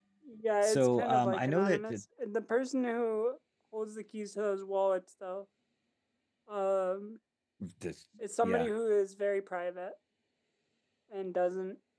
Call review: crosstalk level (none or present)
present